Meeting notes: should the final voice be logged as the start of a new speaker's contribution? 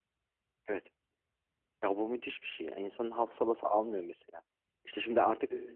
No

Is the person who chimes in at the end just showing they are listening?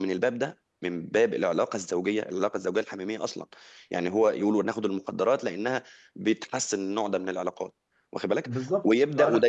Yes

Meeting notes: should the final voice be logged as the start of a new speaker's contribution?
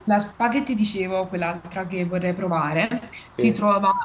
No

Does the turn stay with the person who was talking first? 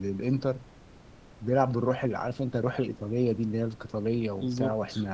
Yes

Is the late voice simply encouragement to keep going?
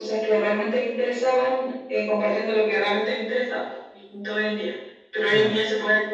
Yes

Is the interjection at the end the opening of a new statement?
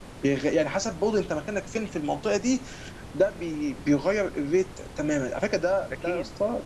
No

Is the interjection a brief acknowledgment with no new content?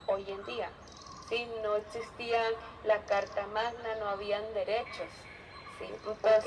No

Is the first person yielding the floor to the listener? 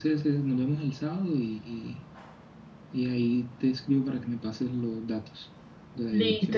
Yes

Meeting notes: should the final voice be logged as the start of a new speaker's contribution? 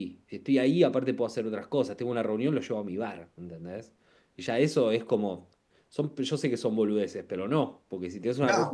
No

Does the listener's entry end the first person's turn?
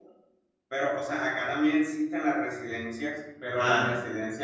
No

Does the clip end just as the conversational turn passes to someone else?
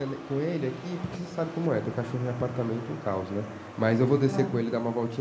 No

